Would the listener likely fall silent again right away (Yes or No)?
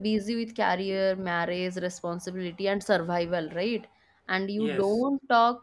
Yes